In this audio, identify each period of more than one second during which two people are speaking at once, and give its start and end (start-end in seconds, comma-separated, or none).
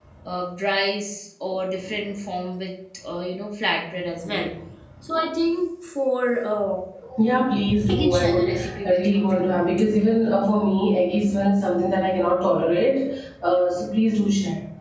7.9-10.0